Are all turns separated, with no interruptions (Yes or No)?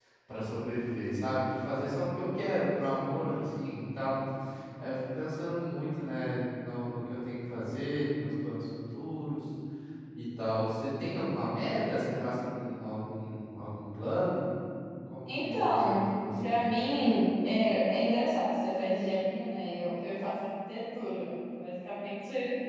No